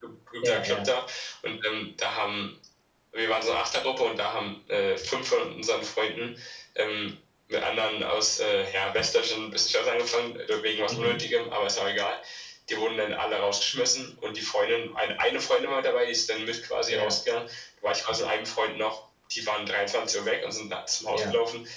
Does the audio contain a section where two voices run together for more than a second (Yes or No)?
No